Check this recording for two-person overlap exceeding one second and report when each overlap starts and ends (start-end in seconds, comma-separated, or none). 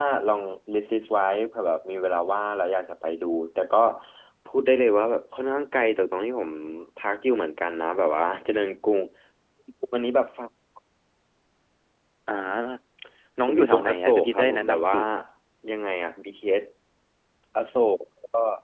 13.4-15.0